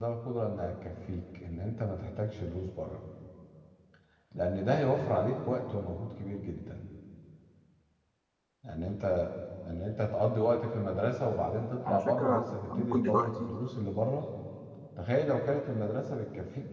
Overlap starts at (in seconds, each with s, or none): 11.8 s